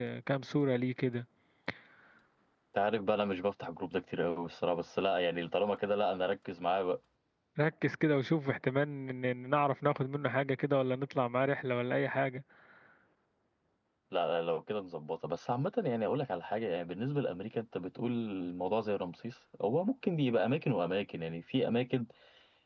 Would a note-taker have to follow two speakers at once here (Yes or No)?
No